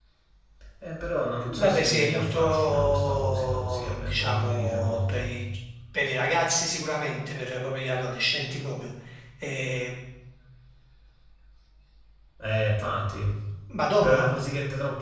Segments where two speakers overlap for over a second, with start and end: 1.4-5.3

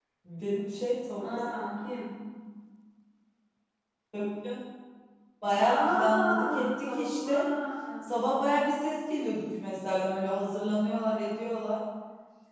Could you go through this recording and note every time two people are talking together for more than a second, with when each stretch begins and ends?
5.5-7.5

